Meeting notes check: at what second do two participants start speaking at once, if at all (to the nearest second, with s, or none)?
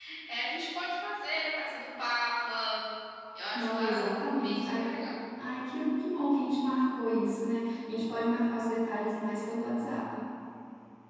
4 s